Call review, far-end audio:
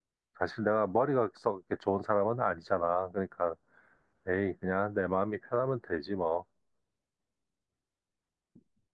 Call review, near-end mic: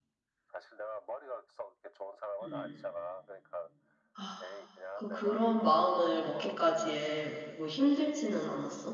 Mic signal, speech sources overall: both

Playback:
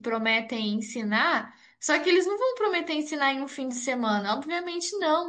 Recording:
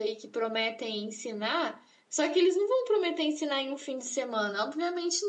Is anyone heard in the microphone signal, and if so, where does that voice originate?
echo only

